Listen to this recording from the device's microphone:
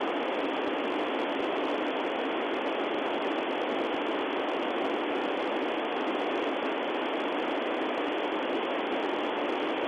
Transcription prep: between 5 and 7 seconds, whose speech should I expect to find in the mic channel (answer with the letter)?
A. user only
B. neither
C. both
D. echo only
B